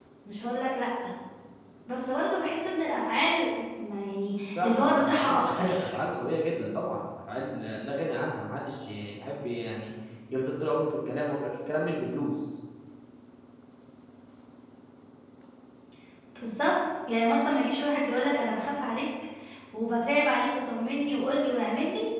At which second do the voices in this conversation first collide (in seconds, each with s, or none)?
4.5 s